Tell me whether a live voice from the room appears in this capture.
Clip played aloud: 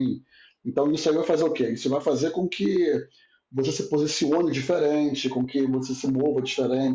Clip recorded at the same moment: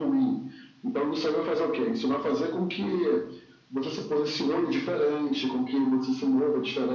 No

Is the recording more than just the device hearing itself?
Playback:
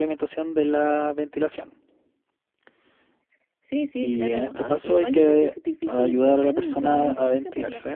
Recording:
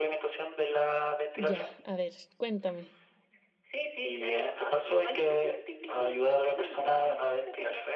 Yes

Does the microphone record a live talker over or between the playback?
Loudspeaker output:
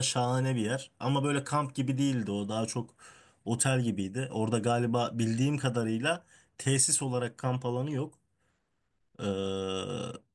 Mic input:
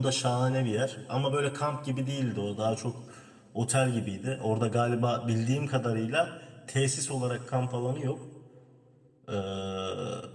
No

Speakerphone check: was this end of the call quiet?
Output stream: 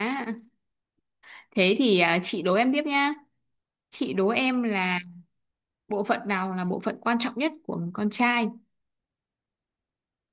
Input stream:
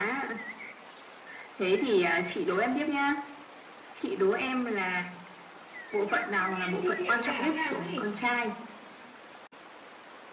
No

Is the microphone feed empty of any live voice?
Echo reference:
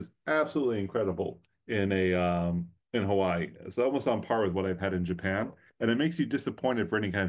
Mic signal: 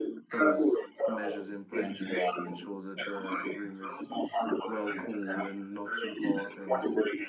No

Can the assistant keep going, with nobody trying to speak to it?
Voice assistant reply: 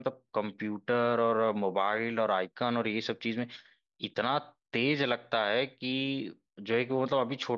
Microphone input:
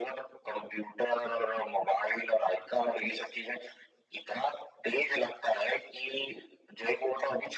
Yes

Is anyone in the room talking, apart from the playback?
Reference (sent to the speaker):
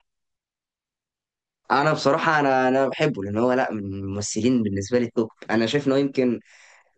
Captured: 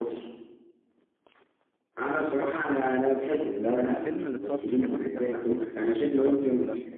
Yes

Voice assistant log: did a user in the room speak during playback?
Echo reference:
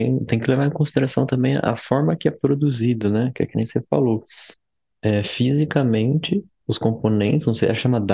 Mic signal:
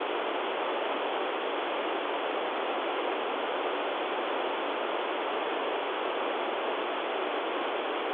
No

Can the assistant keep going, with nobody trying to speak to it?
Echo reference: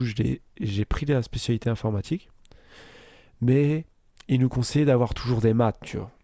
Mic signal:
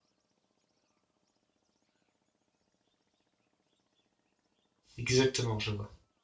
No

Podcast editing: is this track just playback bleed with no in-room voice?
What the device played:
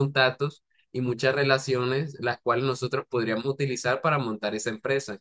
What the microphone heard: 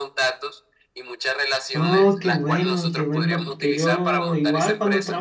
No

